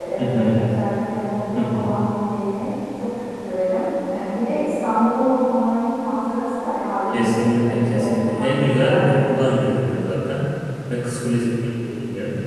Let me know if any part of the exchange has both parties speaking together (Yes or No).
Yes